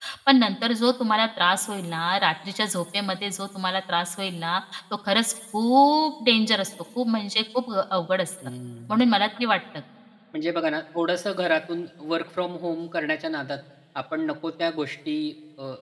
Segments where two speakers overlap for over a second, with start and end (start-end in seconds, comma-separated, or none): none